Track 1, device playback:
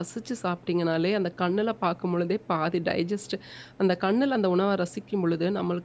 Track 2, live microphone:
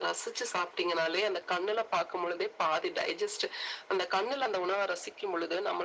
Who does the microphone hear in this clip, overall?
echo only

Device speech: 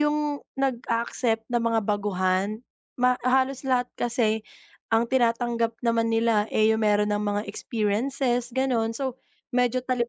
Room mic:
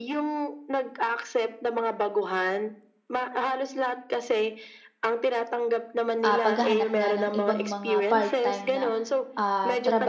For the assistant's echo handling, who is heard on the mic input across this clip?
both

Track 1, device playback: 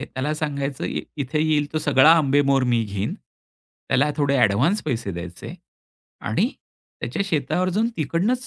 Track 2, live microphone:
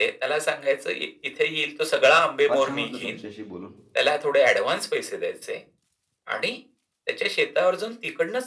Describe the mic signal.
both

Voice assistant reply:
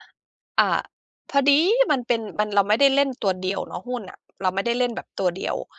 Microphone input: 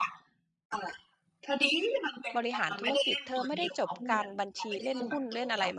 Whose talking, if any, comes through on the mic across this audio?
both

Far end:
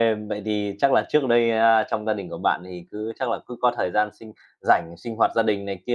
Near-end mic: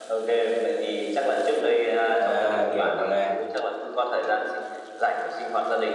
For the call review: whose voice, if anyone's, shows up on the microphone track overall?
both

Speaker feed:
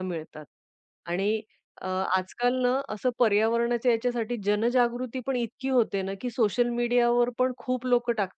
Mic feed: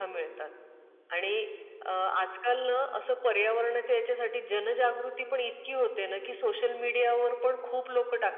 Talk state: echo only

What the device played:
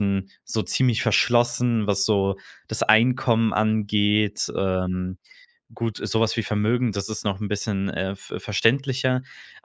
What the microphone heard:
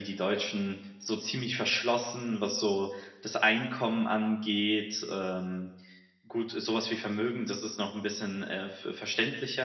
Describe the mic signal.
echo only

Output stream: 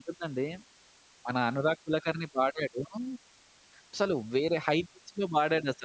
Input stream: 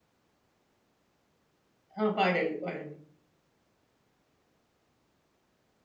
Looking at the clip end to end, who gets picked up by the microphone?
user only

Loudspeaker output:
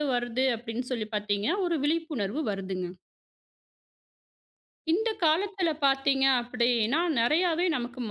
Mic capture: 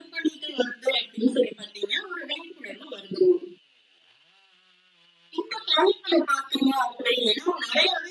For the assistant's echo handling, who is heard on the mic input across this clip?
echo only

